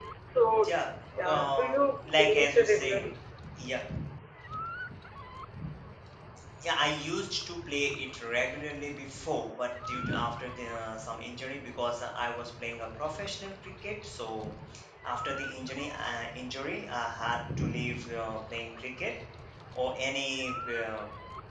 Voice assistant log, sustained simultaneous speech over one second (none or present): present